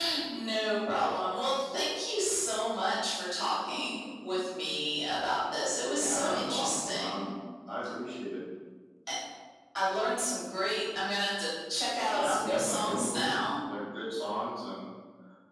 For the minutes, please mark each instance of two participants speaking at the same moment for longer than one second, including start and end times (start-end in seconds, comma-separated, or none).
6.0-7.3, 12.1-13.5